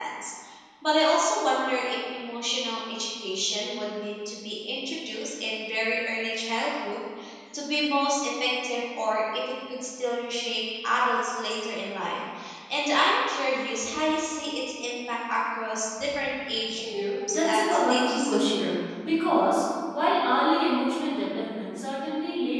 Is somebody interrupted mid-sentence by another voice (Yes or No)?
Yes